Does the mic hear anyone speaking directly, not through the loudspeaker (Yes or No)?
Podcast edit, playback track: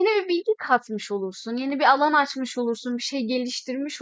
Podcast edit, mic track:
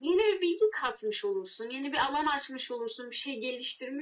No